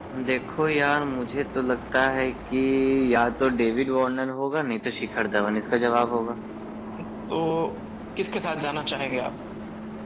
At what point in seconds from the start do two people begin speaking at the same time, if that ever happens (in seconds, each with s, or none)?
none